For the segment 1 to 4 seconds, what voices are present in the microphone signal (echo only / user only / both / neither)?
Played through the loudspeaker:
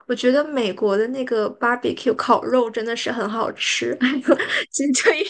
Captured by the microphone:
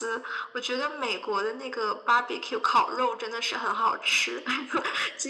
echo only